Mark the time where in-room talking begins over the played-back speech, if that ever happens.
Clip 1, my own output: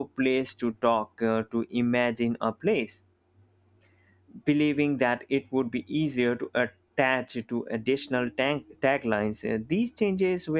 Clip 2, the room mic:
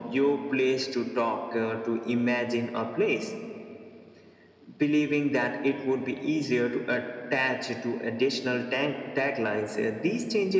none

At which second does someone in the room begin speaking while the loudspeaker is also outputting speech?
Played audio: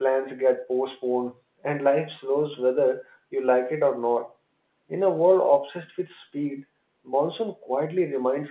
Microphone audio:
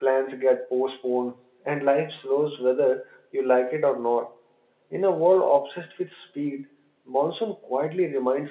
none

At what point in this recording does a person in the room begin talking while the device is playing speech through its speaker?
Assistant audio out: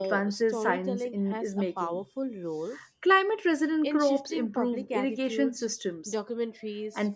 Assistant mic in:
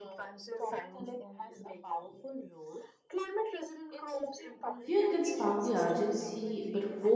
5 s

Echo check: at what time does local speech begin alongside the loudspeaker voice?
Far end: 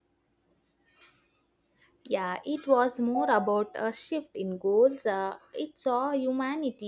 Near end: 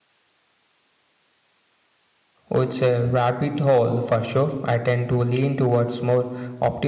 3 s

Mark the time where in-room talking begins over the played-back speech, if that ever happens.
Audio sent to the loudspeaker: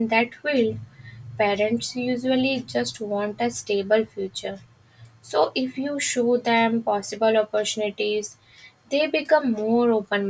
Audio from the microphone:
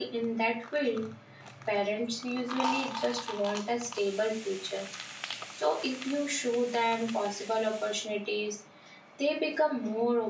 none

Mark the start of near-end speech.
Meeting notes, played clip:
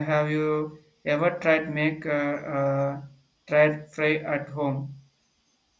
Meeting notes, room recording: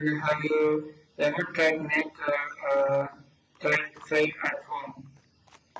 none

